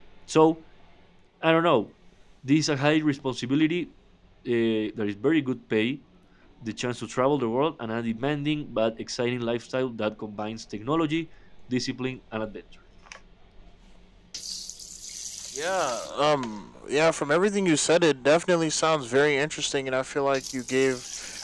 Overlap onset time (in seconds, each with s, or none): none